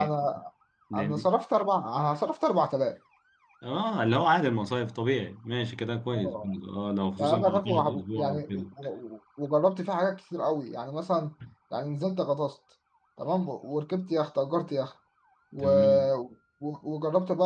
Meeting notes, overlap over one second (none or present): present